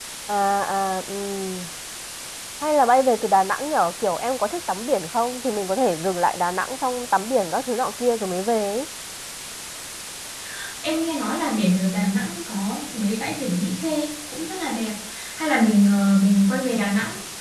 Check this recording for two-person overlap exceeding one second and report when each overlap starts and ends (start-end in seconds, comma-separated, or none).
none